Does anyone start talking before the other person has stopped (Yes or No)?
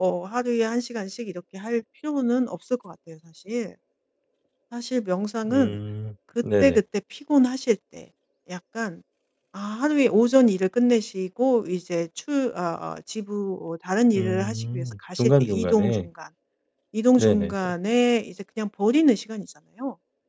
Yes